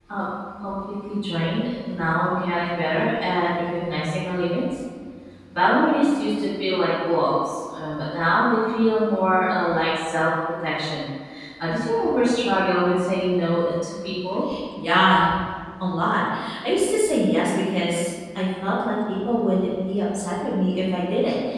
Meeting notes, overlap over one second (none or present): none